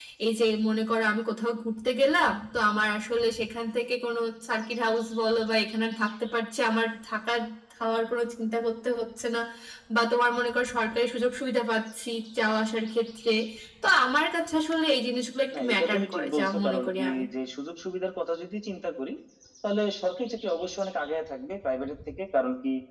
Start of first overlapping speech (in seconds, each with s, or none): 15.5 s